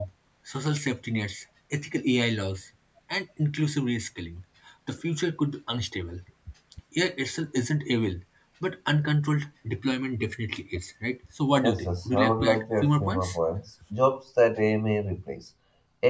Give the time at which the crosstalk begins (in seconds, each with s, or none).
11.6 s